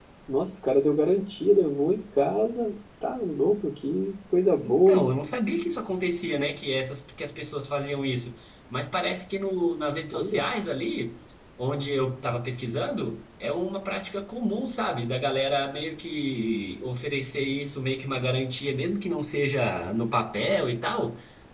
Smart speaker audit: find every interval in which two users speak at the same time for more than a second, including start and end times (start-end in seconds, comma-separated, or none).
none